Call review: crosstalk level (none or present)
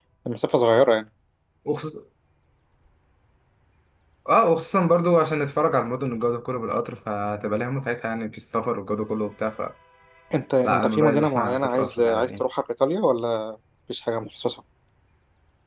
present